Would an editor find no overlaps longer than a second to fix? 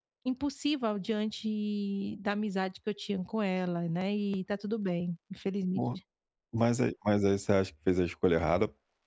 Yes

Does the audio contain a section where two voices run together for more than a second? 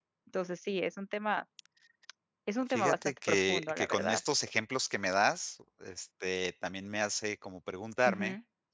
Yes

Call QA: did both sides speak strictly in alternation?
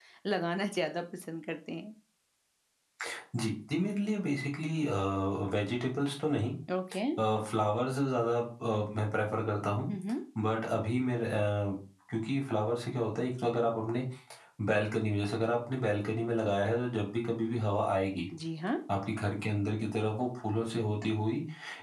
Yes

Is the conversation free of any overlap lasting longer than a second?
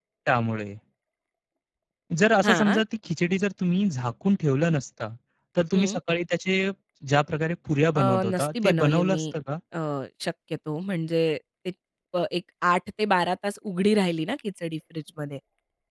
No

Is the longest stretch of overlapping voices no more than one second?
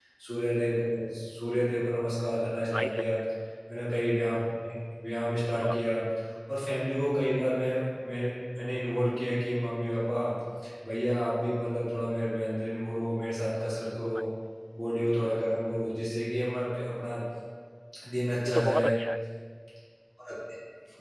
Yes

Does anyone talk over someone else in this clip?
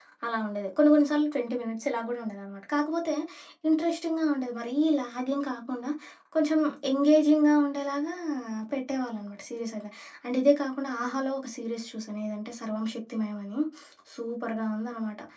No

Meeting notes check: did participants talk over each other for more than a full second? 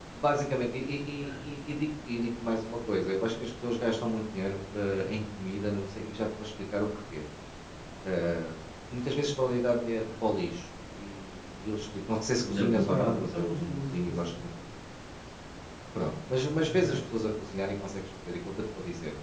Yes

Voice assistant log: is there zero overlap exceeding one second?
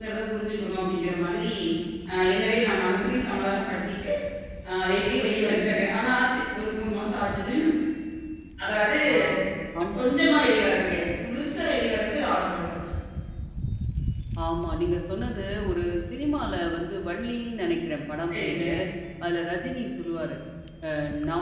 Yes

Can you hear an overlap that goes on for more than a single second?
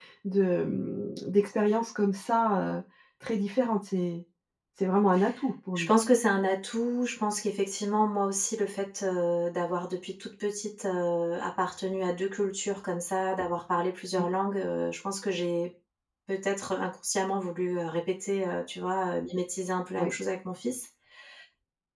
No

